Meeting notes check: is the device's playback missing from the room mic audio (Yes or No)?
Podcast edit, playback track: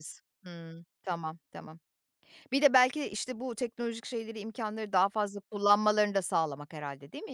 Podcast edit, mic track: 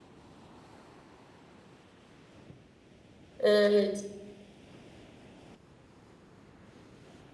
Yes